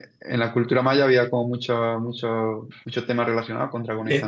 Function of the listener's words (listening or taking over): taking over